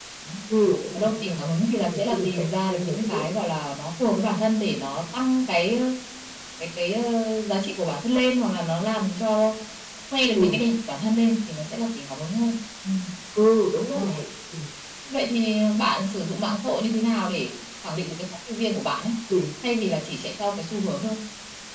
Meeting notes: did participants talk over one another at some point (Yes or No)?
Yes